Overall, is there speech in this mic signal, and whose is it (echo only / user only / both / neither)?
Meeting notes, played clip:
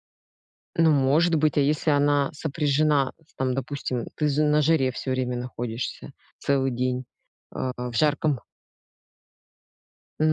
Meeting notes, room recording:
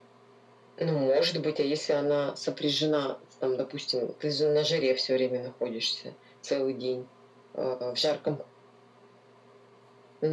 echo only